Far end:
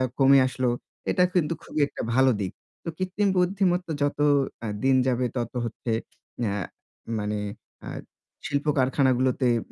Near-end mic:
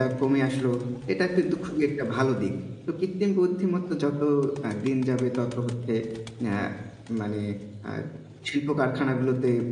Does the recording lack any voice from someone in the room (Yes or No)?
Yes